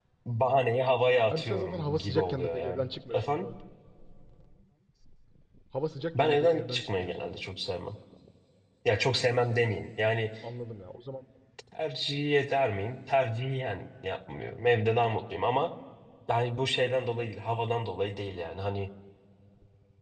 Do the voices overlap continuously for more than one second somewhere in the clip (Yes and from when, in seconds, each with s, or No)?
Yes, from 1.3 s